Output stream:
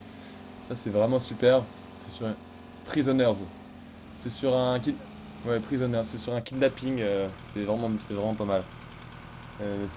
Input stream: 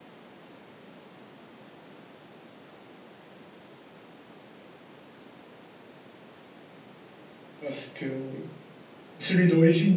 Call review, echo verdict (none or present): none